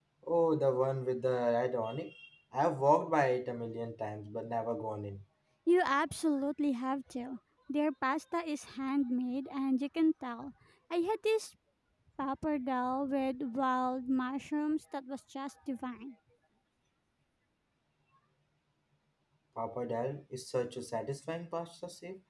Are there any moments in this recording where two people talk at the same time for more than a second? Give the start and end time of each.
none

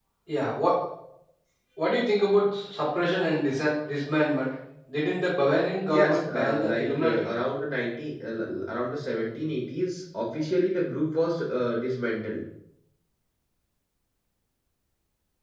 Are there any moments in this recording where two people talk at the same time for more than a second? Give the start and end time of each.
5.9-7.3

